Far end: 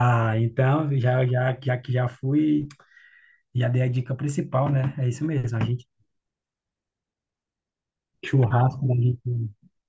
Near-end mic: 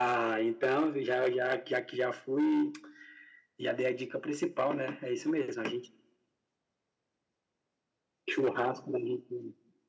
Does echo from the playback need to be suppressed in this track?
Yes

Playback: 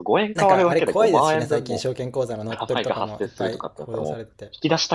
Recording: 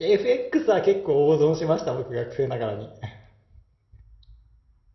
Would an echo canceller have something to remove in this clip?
No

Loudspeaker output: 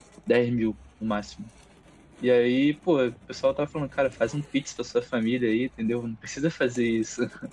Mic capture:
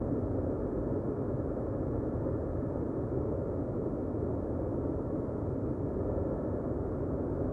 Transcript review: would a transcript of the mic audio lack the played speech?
Yes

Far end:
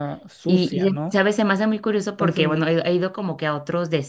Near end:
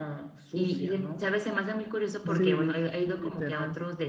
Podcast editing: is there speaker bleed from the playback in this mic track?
Yes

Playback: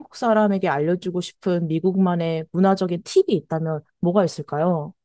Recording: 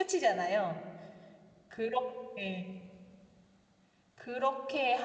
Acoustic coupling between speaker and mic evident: No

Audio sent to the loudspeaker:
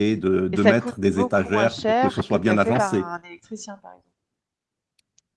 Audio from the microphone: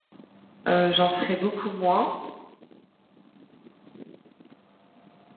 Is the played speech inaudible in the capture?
Yes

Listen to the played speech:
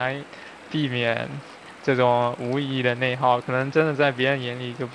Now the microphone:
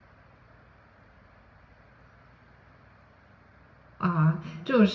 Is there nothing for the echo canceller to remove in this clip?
Yes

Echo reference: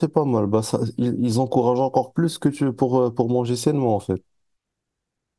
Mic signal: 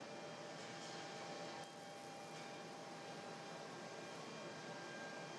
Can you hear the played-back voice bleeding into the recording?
No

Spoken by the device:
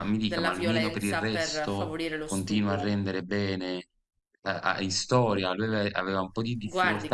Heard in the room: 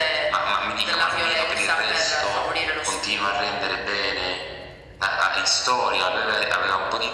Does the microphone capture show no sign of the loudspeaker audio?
No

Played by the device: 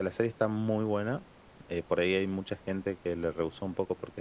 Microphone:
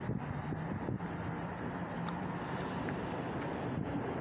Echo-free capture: Yes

